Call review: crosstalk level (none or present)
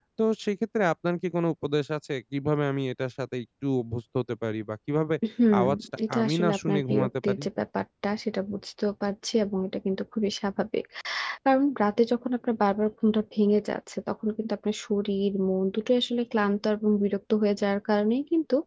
present